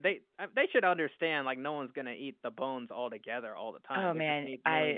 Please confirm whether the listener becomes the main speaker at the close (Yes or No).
Yes